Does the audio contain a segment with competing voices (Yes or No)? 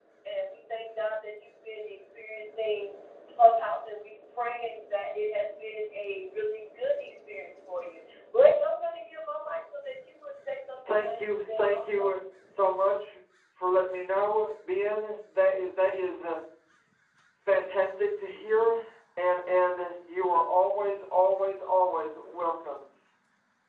Yes